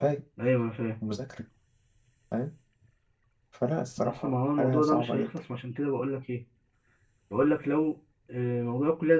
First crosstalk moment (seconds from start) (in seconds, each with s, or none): 4.0 s